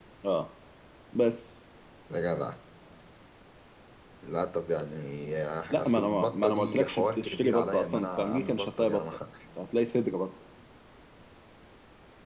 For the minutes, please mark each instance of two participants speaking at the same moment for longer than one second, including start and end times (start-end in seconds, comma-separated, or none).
5.7-9.0